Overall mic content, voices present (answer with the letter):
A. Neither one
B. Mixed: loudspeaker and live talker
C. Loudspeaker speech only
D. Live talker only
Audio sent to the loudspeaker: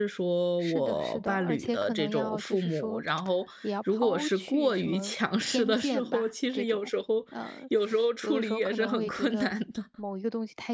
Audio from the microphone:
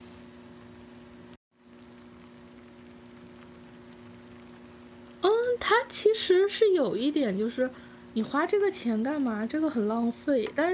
D